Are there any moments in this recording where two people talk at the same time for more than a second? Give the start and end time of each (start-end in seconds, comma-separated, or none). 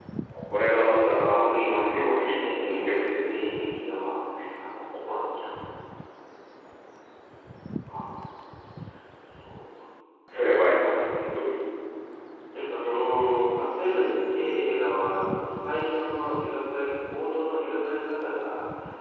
1.0-2.3